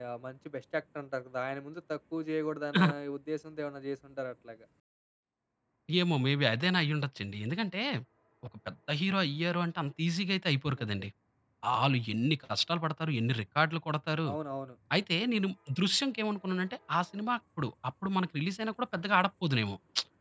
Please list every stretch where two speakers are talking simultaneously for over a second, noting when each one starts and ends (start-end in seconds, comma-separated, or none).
none